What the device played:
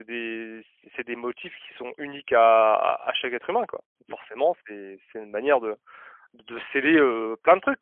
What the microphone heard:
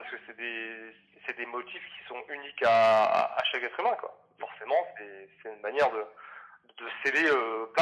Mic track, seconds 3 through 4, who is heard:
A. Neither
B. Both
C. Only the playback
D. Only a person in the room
C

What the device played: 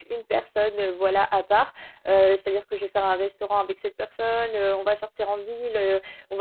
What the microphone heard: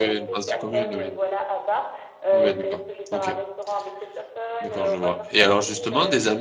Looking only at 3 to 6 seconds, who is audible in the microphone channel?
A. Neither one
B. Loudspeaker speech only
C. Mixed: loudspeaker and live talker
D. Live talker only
C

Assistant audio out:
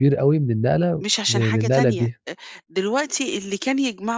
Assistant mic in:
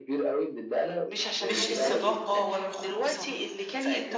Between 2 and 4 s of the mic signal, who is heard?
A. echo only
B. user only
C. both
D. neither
C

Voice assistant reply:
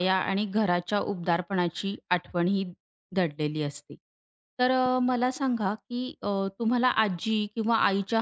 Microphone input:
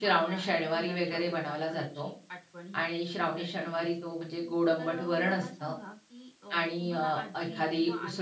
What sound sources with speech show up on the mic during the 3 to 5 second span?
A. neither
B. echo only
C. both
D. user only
C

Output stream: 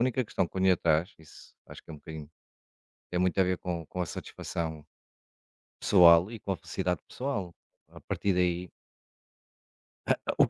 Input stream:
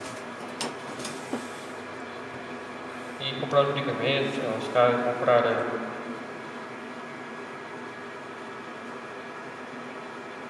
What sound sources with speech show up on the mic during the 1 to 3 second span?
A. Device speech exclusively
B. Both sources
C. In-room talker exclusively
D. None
D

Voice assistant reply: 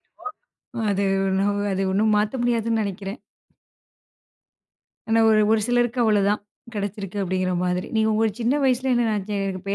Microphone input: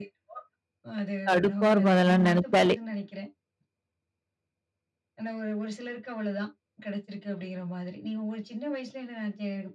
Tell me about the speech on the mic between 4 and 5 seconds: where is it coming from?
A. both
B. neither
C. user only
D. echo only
B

